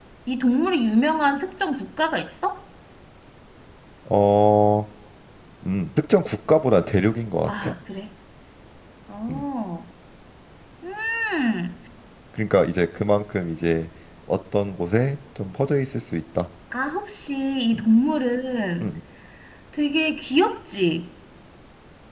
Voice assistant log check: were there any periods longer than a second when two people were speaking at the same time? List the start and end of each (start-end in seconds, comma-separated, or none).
none